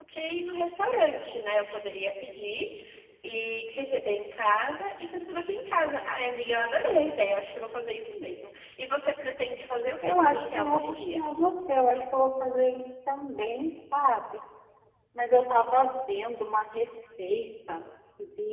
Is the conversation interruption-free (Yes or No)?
No